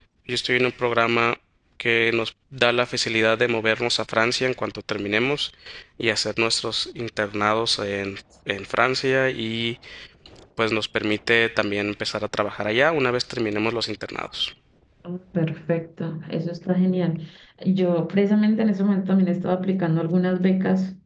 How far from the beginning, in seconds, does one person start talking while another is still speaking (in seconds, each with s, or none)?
none